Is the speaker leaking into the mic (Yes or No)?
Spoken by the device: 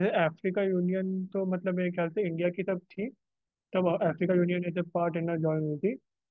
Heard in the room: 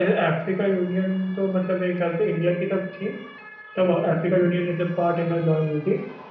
Yes